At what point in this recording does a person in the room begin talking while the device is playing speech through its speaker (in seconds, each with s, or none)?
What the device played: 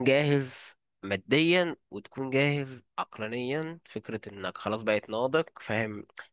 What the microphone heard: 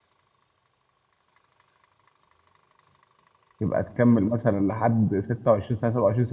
3.6 s